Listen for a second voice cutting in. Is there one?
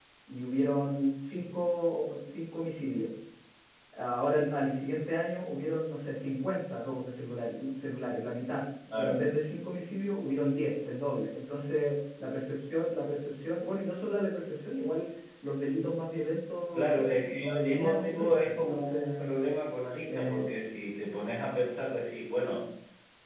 Yes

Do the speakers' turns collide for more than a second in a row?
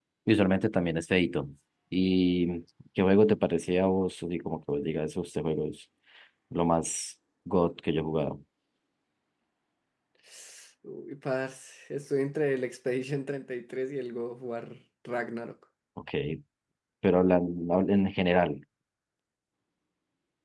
No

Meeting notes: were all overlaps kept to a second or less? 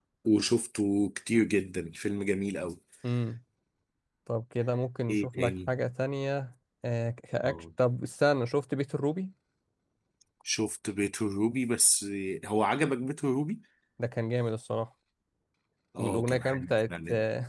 No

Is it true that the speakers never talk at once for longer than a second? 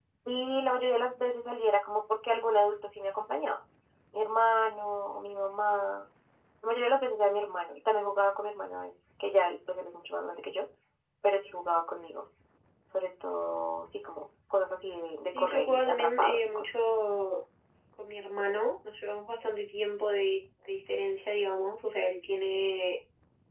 No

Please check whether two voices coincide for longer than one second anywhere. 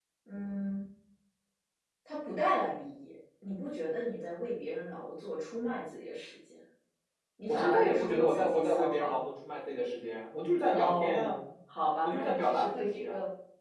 Yes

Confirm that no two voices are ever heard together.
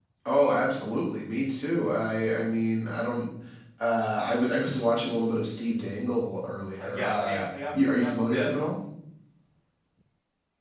No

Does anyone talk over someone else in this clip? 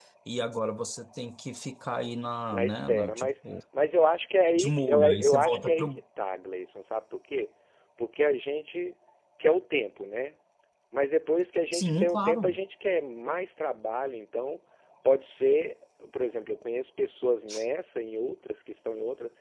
Yes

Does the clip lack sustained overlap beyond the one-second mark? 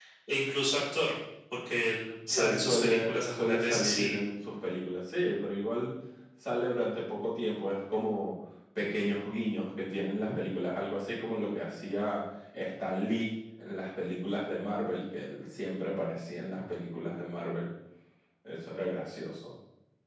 No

